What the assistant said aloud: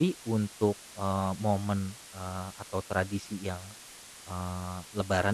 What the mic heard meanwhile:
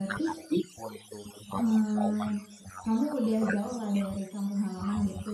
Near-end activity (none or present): present